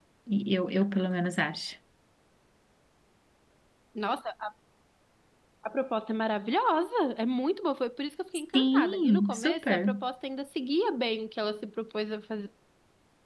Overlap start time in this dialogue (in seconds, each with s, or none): 8.5 s